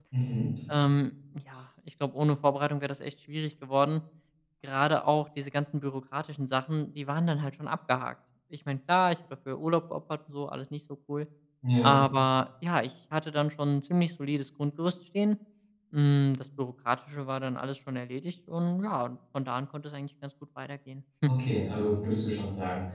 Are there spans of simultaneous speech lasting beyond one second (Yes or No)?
No